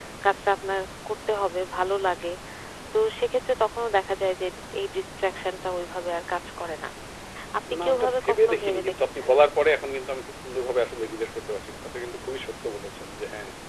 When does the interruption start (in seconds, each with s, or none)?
7.8 s